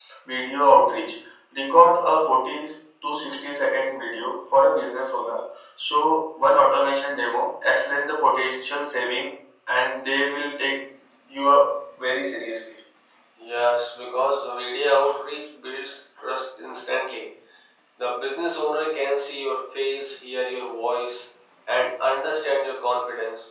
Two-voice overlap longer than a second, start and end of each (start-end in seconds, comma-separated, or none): none